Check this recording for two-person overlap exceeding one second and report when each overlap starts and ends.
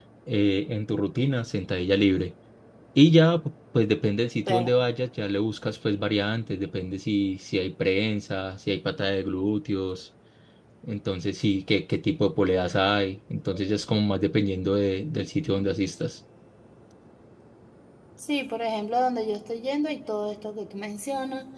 none

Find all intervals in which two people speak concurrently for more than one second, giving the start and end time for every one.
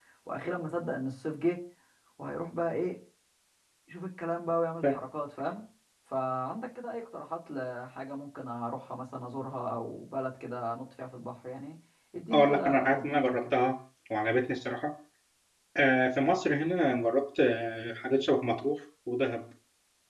12.3-13.5

